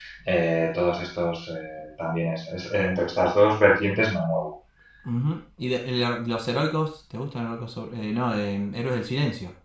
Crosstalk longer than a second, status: none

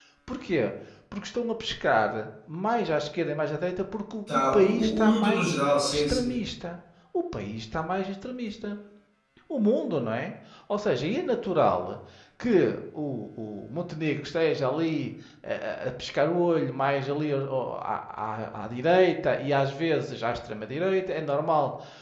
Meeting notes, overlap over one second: present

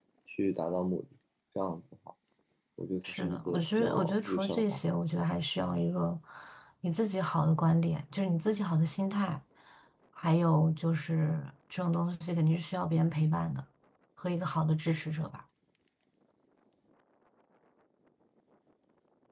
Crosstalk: present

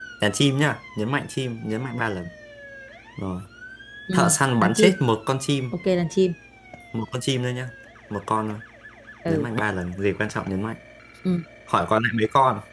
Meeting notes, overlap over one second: none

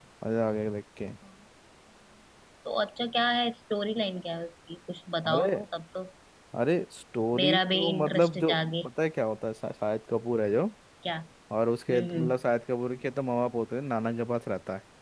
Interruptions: present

